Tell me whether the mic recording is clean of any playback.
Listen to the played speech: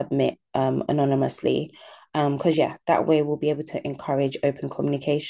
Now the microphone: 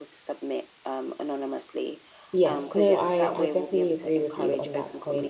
No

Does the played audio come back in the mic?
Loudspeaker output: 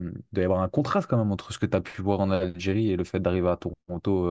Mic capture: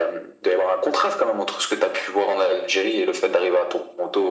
Yes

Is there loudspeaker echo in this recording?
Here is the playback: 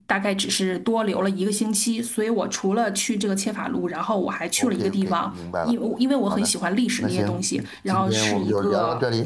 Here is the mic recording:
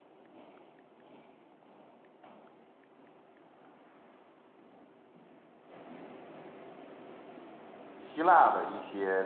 No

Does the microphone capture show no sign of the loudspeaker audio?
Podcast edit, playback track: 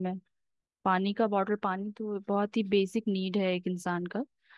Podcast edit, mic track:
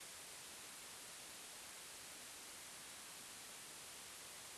Yes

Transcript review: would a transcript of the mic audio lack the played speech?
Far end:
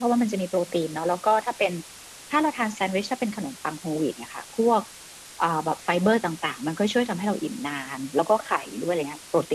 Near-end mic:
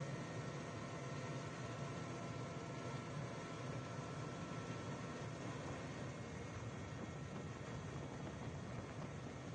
Yes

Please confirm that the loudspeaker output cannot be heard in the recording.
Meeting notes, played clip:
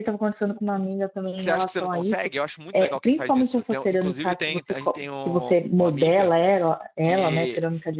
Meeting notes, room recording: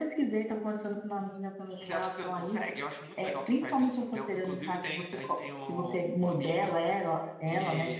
No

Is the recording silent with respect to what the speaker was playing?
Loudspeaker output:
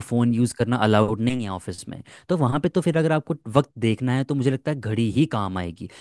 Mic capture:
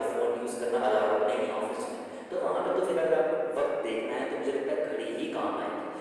No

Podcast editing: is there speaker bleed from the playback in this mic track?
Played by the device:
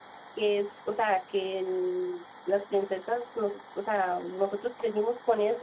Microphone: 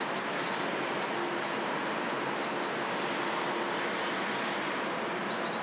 No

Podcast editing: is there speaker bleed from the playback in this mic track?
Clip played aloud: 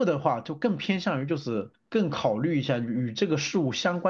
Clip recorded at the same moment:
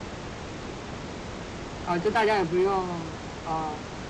No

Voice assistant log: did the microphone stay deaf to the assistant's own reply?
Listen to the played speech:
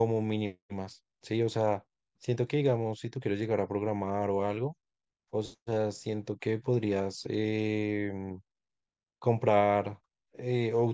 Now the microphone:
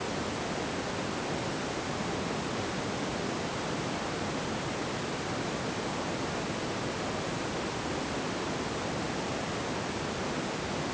Yes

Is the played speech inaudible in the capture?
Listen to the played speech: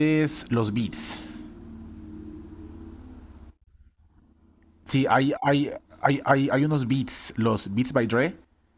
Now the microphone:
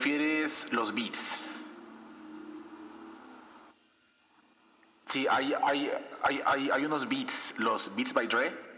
No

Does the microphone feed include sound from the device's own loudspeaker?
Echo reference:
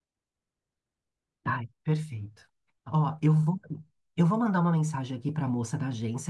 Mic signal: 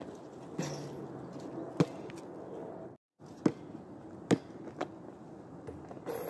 No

